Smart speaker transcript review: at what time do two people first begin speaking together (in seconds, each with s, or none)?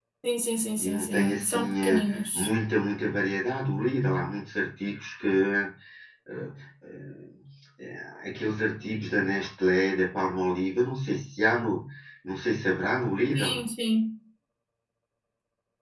0.8 s